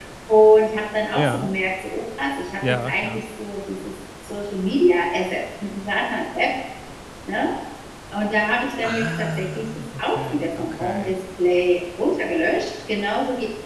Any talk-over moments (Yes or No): Yes